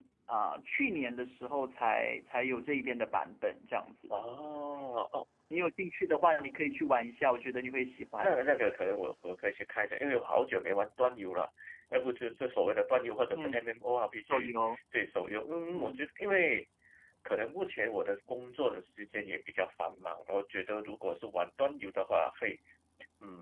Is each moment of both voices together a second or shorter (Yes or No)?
Yes